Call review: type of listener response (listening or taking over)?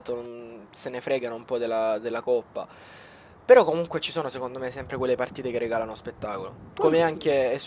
listening